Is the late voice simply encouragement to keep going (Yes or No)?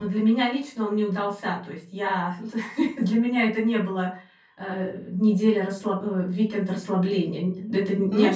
No